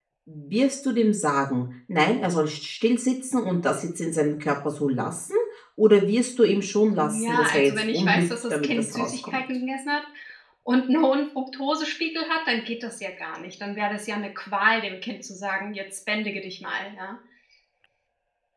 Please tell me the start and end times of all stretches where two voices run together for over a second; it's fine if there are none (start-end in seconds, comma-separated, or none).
7.0-9.4